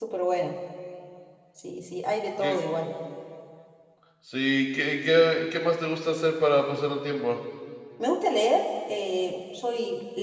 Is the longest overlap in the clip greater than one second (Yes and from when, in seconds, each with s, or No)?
No